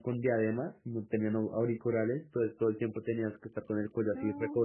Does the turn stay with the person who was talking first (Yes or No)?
Yes